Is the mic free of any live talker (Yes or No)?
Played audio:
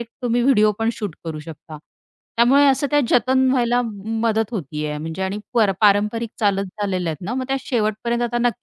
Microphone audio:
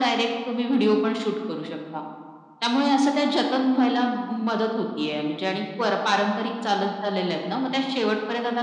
Yes